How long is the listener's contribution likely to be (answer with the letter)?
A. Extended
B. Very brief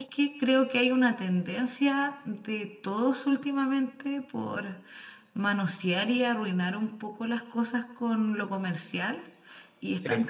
B